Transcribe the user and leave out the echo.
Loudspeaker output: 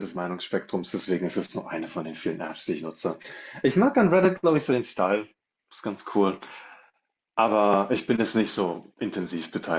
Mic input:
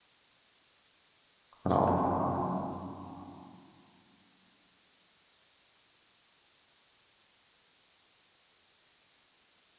Keine Ahnung.

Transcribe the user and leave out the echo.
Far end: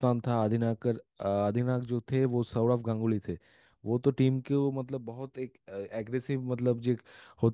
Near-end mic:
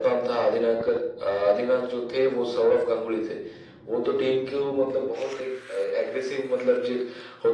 none

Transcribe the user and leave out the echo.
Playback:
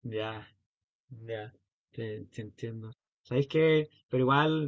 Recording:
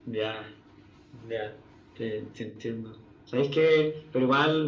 none

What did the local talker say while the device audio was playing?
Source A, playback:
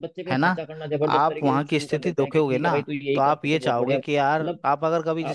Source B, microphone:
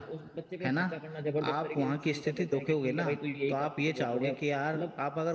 none

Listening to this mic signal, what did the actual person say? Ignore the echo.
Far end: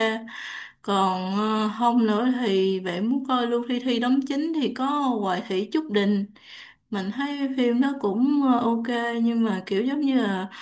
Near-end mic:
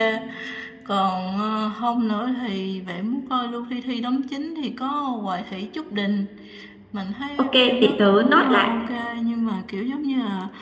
ok để tớ note lại

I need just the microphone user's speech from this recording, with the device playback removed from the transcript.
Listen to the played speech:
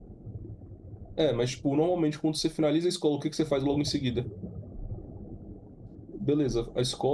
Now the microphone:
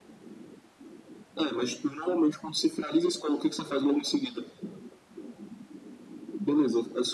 none

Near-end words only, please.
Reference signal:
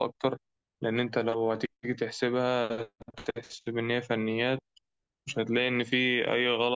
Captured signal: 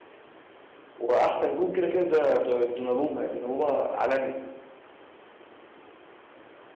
واحسن جون كده كده ده ده دوناروما يعني دوناروما عالمي

